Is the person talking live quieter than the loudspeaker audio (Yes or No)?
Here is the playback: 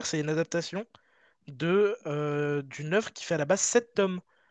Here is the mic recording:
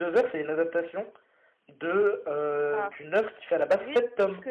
Yes